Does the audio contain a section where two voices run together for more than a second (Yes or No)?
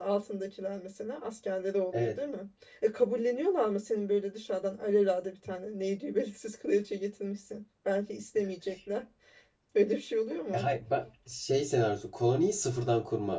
No